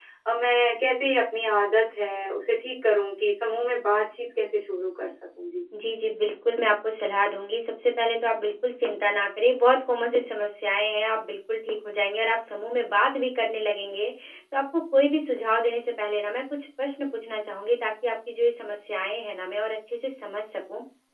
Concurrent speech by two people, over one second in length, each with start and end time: none

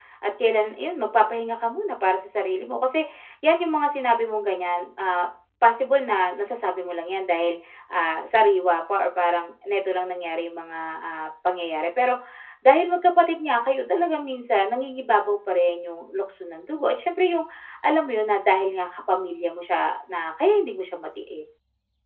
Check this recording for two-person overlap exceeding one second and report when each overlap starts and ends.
none

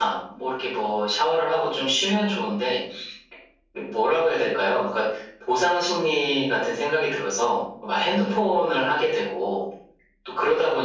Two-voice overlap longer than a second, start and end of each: none

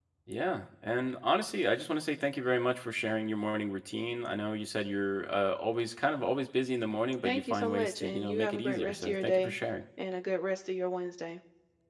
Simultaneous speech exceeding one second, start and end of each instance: 7.2-9.6

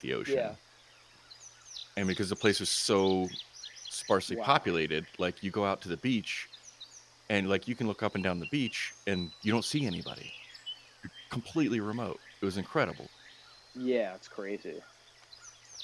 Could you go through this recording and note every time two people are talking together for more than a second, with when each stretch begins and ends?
none

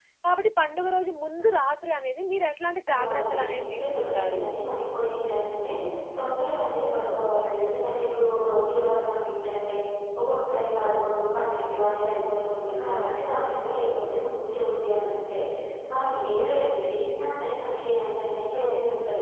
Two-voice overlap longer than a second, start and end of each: 3.0-4.4

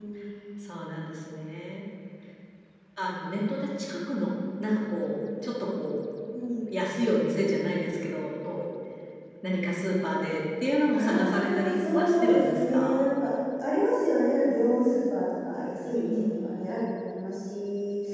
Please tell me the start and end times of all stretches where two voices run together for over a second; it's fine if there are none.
10.9-12.9

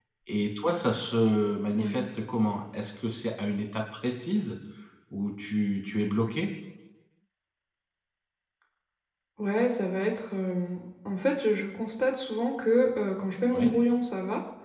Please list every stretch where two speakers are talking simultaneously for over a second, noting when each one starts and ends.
none

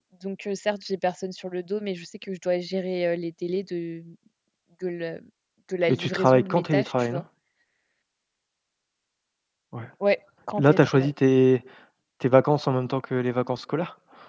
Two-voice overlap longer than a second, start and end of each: 5.9-7.2

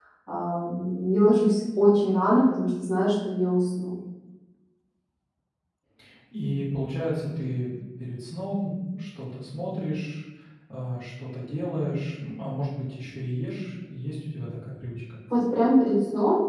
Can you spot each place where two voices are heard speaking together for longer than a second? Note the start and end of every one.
none

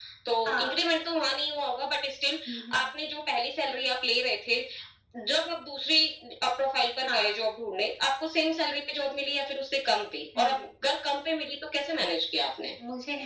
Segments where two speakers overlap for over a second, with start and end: none

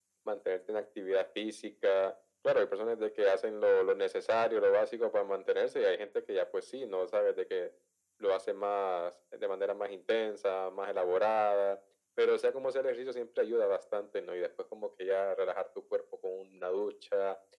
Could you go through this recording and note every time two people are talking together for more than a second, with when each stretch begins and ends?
none

